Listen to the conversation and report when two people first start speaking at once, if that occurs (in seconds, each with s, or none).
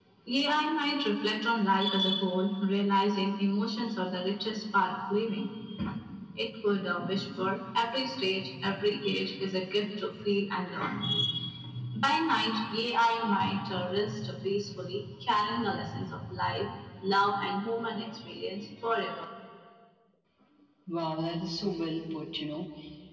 none